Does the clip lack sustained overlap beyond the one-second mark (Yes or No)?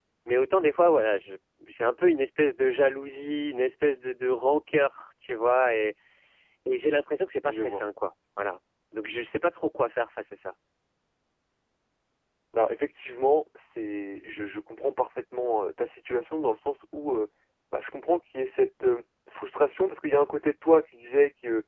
Yes